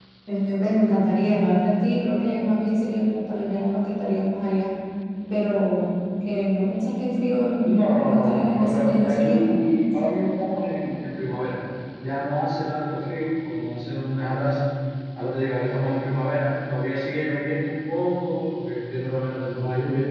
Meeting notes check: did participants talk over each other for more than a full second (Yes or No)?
Yes